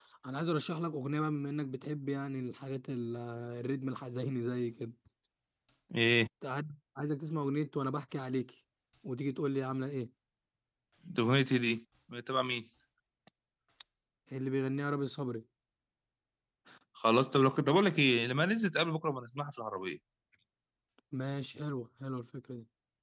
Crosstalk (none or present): none